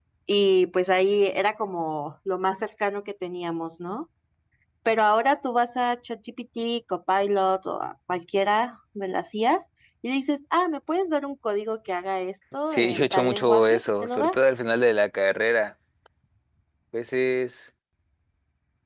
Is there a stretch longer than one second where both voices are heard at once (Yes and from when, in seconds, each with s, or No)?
Yes, from 12.7 s